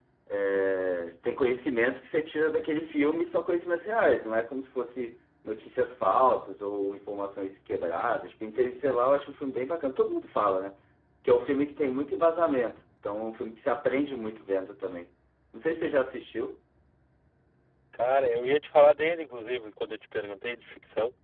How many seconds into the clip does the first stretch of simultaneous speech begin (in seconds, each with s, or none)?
none